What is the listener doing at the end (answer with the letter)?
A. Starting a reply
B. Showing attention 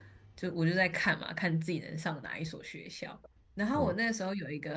B